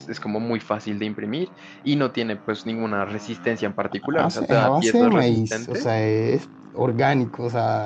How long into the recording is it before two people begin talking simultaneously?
4 s

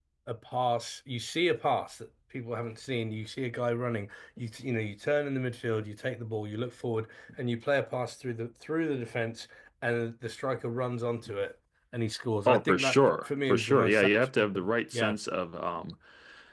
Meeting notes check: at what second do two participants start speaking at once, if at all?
12 s

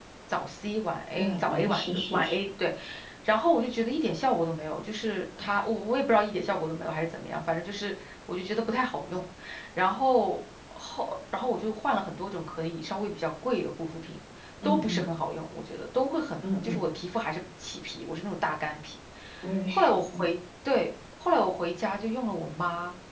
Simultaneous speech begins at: 1 s

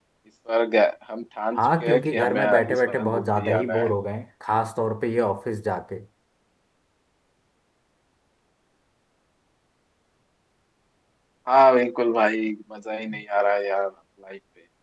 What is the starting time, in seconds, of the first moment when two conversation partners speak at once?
1 s

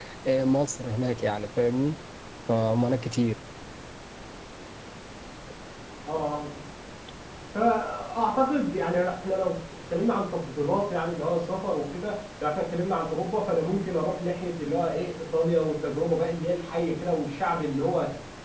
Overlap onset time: none

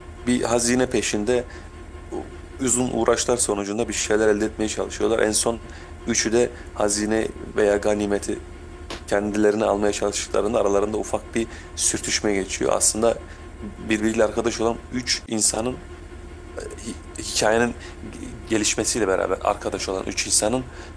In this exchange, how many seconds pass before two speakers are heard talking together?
none

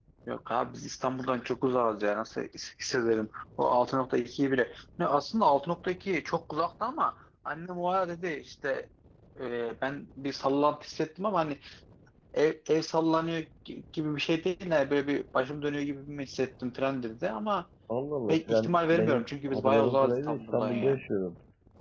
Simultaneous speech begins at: 18 s

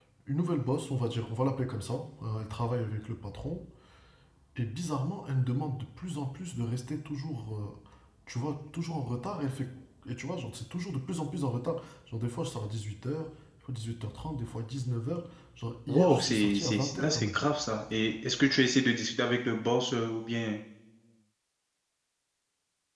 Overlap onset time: 16 s

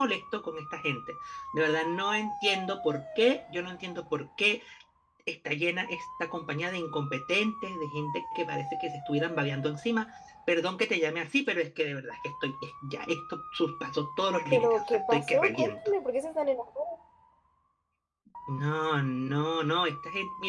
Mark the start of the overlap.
15 s

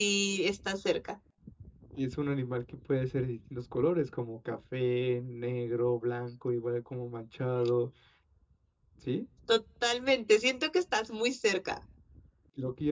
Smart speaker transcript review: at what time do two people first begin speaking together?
none

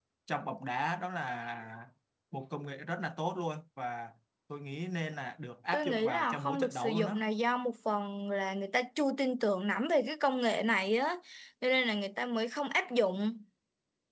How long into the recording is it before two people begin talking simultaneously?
6 s

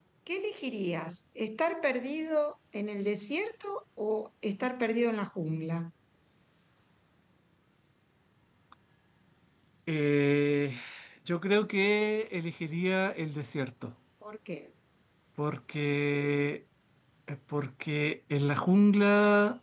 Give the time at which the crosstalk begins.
none

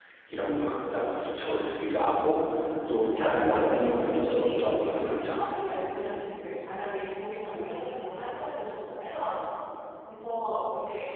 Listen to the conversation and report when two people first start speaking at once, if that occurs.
3 s

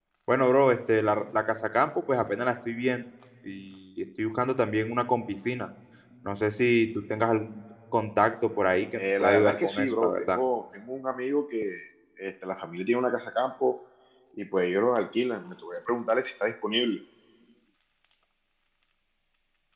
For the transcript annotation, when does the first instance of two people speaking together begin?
9 s

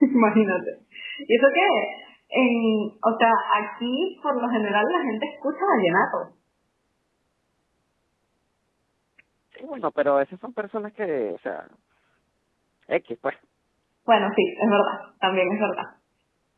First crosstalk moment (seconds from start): none

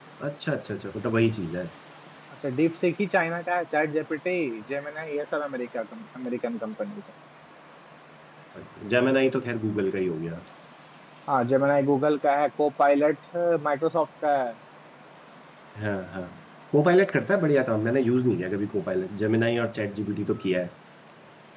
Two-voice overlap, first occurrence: none

